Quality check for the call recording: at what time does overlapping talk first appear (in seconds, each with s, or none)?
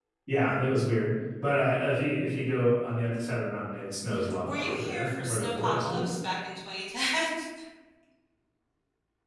4.5 s